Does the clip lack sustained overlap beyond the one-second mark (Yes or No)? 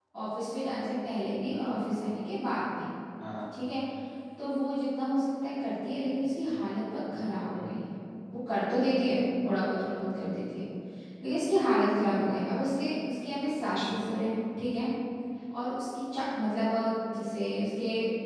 Yes